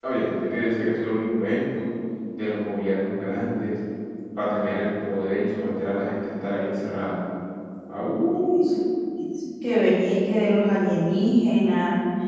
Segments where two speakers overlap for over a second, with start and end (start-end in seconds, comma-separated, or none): none